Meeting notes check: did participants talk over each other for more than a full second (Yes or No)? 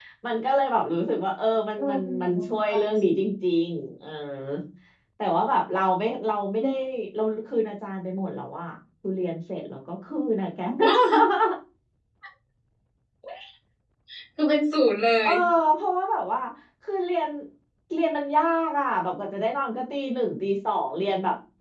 Yes